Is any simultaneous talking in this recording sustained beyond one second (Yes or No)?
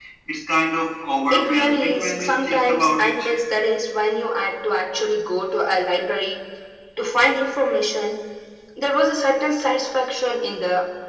Yes